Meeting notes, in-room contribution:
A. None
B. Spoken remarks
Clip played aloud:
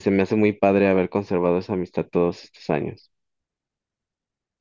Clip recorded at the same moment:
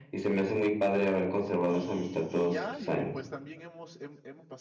B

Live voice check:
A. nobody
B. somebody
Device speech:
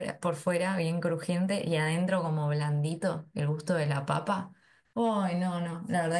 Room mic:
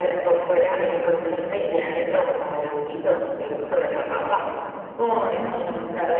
A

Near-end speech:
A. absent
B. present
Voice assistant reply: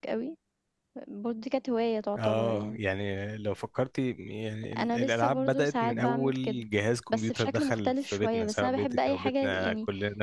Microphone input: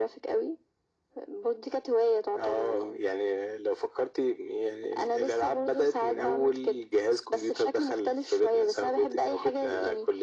A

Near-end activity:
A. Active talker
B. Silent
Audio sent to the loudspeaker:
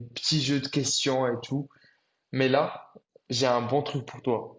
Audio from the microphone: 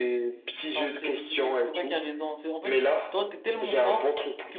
A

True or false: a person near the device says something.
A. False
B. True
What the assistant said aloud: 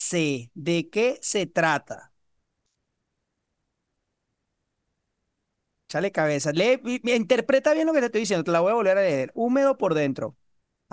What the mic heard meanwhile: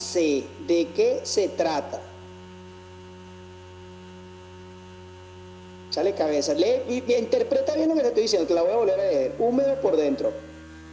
A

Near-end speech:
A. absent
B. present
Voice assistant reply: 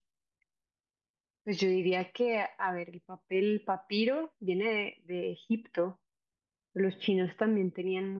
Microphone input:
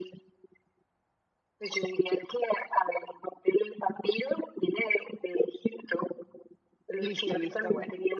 B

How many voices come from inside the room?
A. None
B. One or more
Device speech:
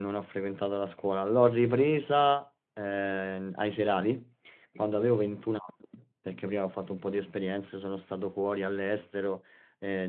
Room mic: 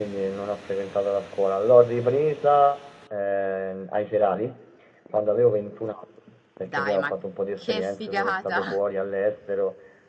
B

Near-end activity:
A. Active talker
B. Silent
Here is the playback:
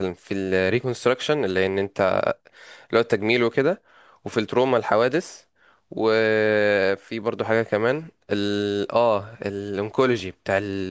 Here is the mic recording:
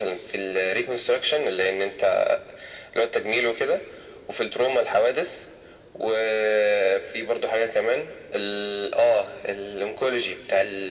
B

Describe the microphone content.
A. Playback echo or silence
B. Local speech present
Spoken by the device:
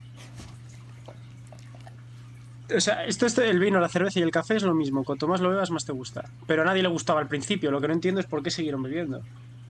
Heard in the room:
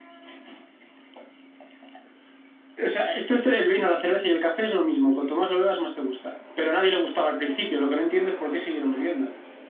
A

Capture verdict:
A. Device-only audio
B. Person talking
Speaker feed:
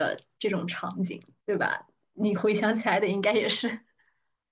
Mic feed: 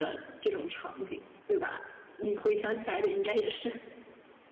A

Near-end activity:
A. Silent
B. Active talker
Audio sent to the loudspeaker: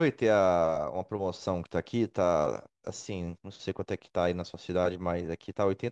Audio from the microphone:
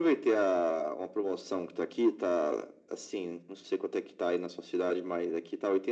A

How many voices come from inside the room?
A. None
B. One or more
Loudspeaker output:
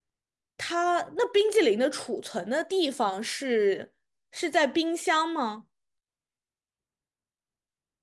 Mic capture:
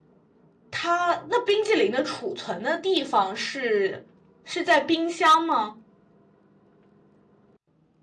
A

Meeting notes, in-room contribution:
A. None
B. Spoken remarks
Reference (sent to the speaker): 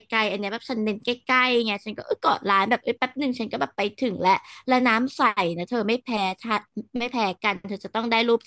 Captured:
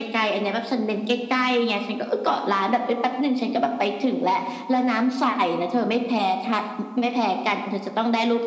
A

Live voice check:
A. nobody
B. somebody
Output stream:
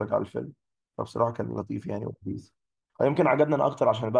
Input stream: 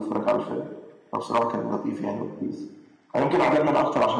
A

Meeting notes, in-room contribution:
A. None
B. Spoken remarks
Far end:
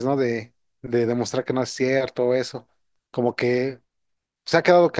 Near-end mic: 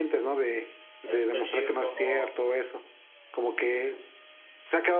B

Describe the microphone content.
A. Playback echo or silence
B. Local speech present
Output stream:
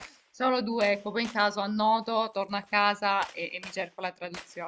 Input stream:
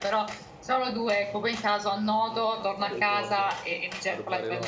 B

